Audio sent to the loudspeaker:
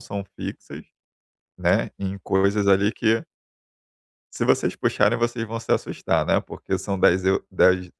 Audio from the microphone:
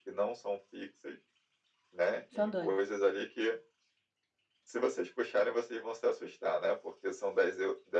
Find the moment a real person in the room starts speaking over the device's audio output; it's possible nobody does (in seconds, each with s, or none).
2.3 s